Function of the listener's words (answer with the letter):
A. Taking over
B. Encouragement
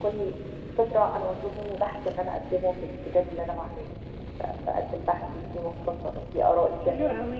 A